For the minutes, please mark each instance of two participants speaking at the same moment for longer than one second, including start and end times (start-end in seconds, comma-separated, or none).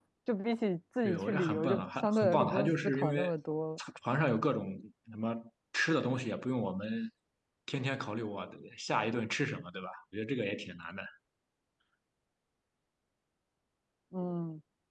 1.0-3.3